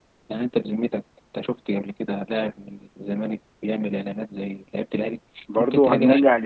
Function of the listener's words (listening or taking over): taking over